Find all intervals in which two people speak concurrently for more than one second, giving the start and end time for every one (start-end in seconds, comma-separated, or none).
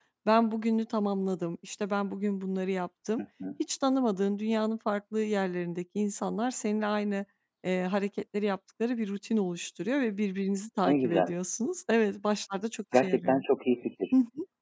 none